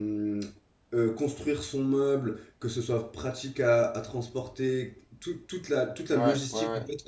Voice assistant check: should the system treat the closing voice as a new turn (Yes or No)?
No